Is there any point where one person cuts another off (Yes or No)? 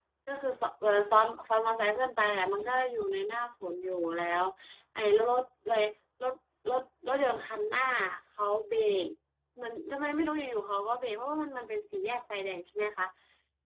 No